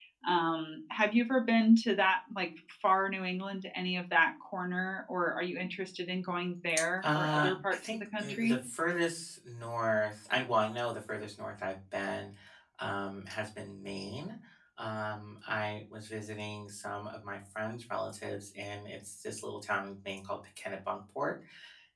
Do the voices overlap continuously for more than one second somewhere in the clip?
Yes, from 7.0 s

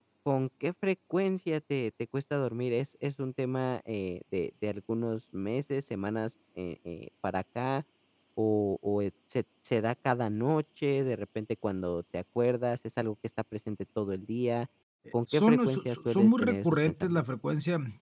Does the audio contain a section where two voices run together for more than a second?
Yes, from 15.3 s

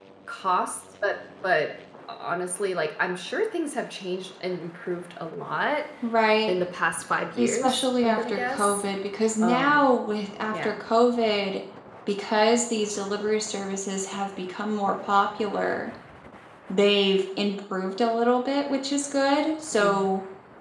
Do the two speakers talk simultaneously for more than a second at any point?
Yes, from 7.4 s

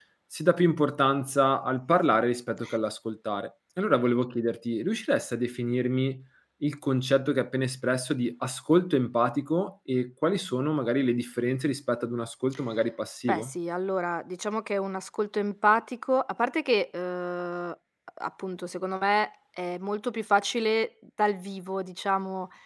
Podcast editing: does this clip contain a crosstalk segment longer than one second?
No

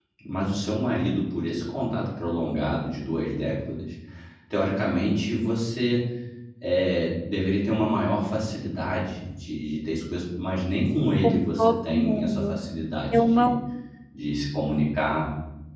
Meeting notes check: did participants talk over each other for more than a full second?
Yes, from 11.2 s

